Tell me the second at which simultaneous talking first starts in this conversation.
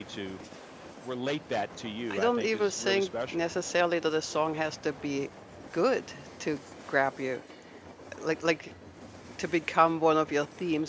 2.1 s

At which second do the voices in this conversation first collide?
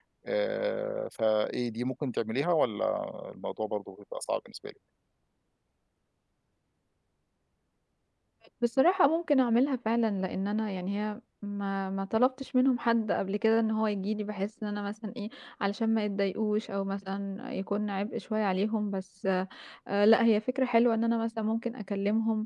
none

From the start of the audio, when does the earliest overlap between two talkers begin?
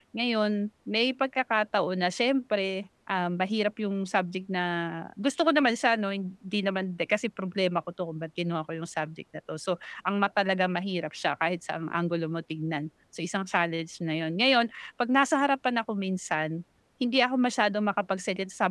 none

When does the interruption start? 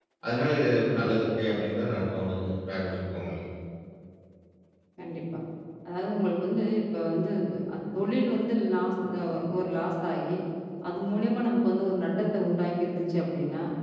none

